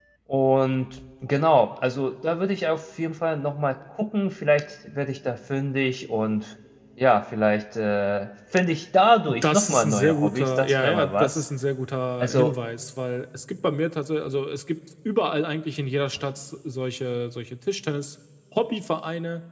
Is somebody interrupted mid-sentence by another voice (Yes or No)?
Yes